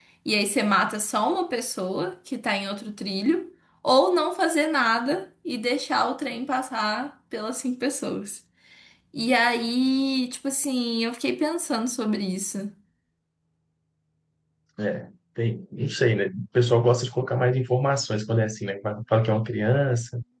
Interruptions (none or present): none